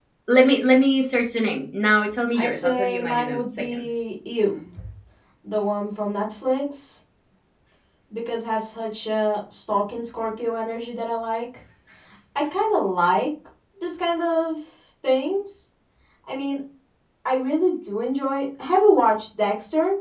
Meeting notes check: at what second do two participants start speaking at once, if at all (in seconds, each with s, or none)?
2.3 s